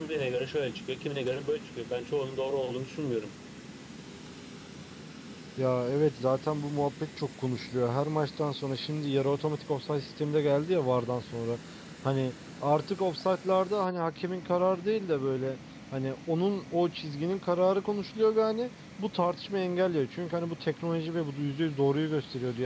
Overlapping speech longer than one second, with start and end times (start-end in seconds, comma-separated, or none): none